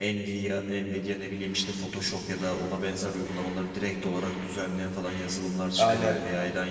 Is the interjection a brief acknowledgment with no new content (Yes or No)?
Yes